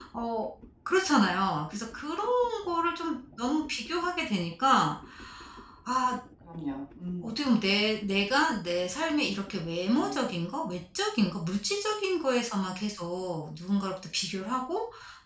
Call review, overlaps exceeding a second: none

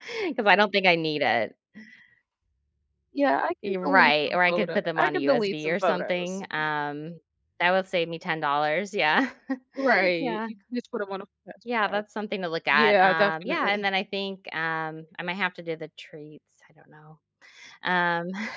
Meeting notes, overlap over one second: present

